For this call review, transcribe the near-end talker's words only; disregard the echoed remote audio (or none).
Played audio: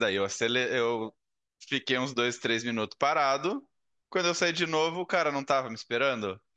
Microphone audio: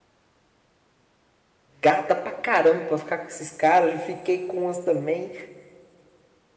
gata pra caramba pra ficar com esses caras. Eu fiquei com umas também